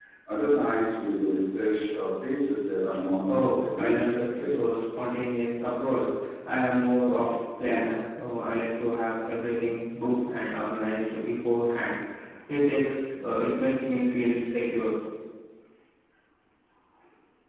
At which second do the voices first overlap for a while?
3 s

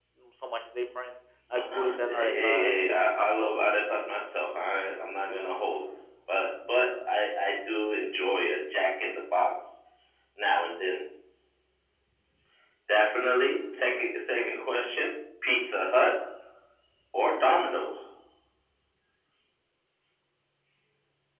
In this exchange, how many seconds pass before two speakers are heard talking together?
2 s

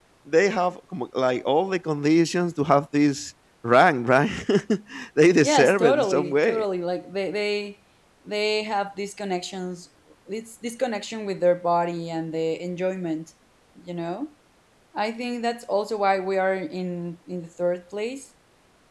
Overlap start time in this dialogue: 5 s

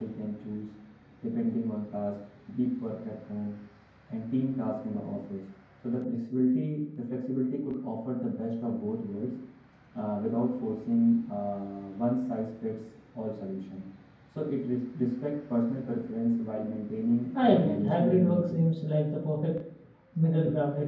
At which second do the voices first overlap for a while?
17 s

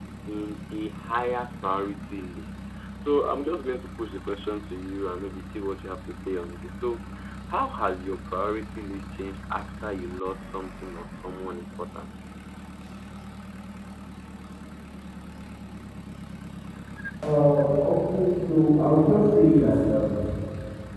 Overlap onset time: none

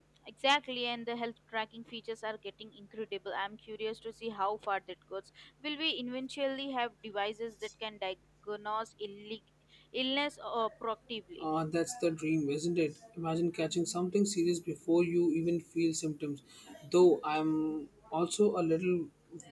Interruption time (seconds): none

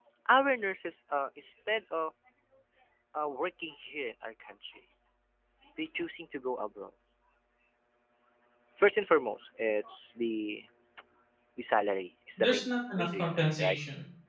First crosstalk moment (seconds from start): 12 s

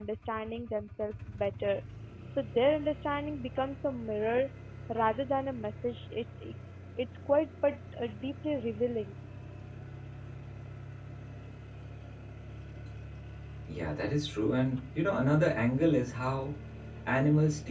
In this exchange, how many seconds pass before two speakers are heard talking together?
none

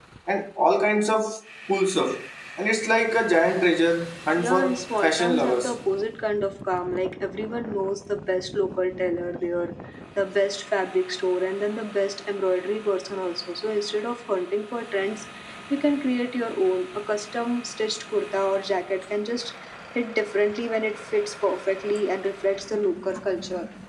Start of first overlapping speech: 4 s

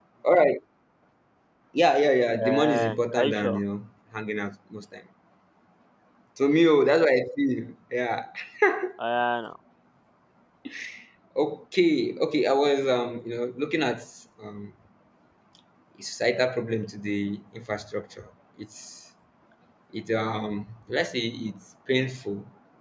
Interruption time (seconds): 2 s

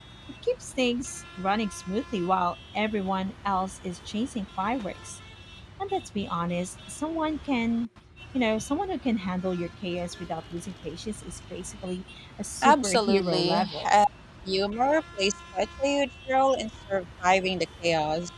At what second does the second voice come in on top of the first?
13 s

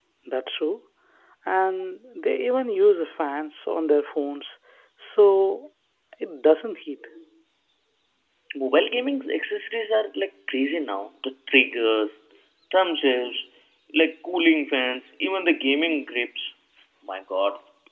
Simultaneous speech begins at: none

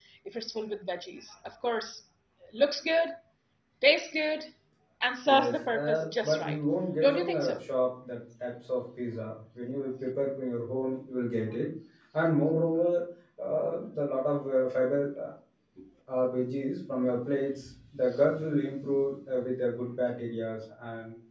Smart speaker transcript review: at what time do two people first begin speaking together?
5 s

